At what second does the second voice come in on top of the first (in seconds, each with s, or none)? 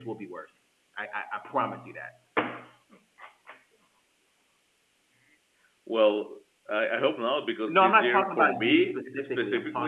7.7 s